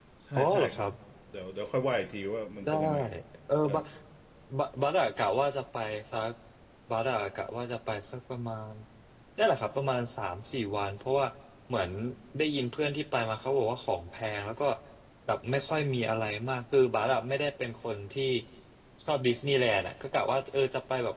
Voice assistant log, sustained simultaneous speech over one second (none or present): none